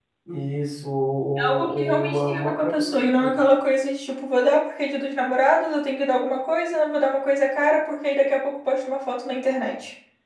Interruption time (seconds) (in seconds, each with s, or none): 1.4 s